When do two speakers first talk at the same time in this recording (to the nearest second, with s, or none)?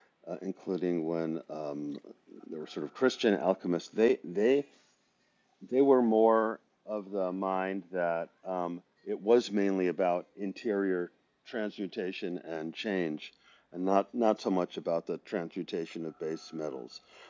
none